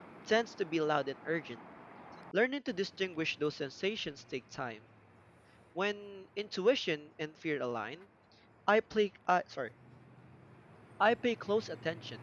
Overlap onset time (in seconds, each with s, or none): none